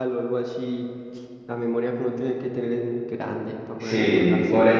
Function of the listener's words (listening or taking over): taking over